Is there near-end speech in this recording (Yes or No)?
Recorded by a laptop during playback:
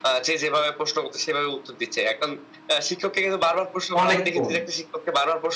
Yes